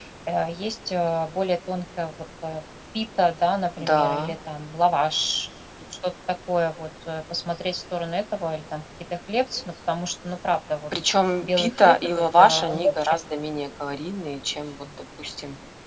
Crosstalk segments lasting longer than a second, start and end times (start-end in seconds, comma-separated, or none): 11.4-13.1